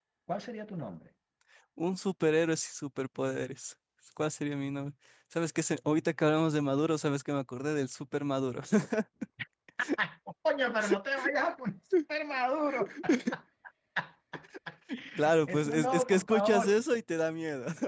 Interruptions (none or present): present